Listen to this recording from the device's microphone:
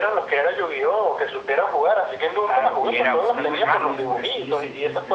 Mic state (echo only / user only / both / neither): both